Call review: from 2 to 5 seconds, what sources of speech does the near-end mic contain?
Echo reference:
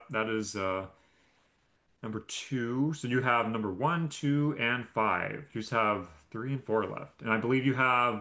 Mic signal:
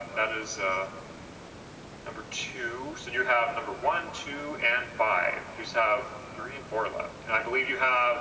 echo only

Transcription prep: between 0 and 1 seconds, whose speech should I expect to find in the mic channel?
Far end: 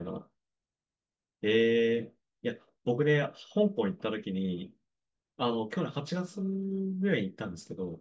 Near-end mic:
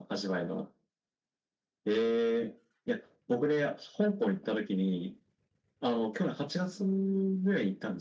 echo only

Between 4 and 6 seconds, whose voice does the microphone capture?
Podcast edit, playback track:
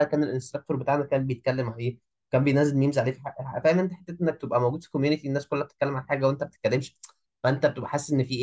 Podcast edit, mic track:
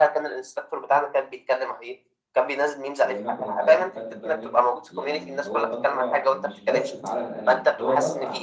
both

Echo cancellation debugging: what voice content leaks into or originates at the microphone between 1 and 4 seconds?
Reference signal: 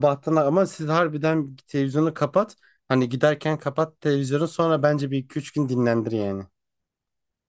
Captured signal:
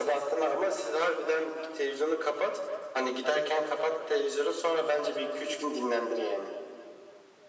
echo only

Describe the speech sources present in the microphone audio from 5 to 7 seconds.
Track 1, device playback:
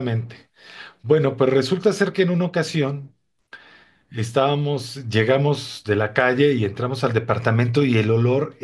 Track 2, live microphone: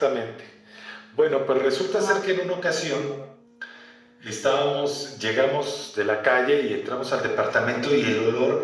echo only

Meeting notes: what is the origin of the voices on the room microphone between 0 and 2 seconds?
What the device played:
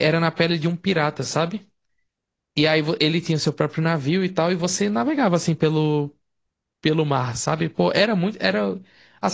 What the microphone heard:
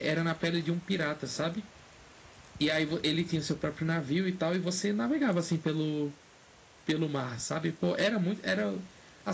echo only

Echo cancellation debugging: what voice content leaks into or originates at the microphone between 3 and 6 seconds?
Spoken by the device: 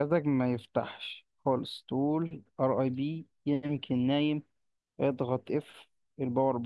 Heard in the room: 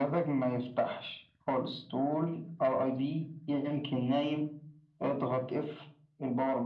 echo only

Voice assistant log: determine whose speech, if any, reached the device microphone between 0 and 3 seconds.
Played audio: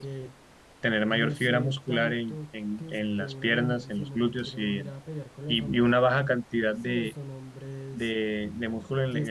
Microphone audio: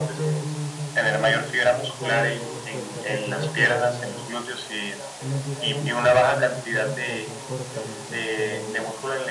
both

